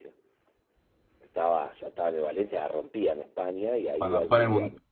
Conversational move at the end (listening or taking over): taking over